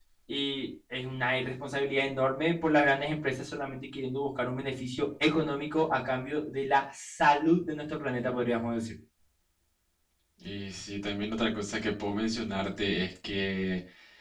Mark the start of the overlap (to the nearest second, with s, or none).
none